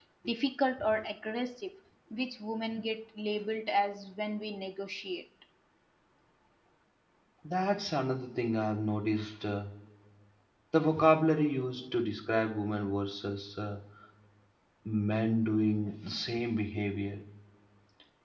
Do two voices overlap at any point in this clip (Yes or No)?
No